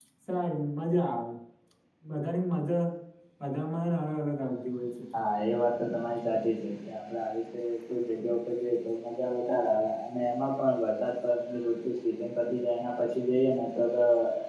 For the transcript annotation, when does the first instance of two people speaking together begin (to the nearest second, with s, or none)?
none